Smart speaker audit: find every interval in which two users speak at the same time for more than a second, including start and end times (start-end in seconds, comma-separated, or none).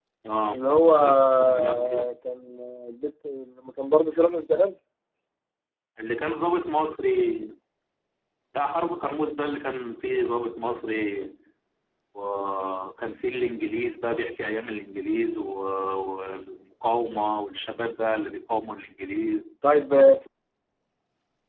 0.5-2.1